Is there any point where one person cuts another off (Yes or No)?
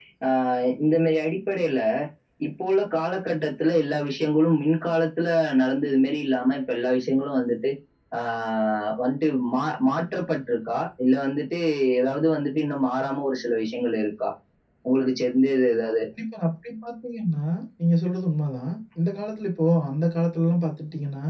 No